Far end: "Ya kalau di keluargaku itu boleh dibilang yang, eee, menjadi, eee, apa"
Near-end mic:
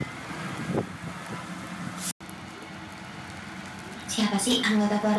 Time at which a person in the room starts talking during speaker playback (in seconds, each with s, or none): 4.1 s